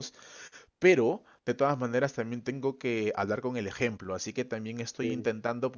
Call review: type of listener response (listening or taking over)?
listening